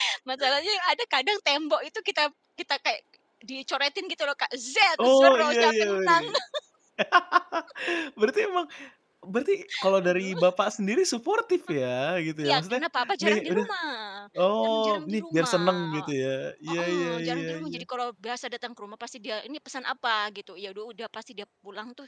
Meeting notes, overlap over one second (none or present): present